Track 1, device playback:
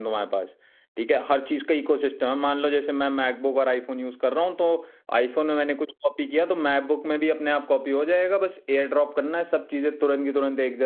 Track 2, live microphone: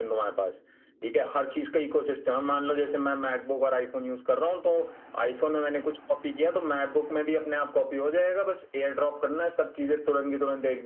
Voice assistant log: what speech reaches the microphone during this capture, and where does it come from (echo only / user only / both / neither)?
echo only